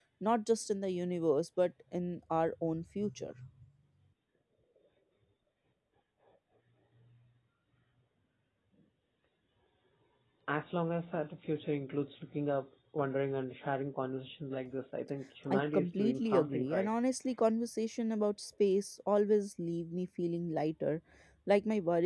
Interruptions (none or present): present